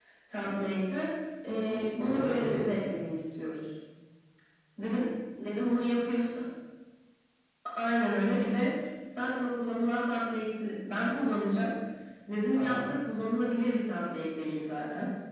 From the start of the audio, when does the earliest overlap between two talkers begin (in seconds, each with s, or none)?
1.7 s